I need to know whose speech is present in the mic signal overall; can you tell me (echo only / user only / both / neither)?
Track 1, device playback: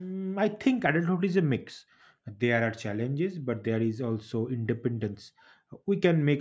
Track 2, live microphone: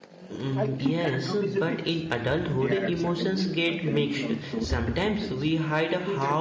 both